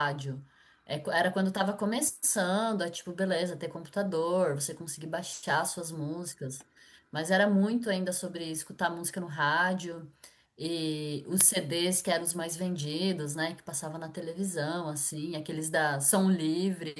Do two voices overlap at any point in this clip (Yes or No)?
No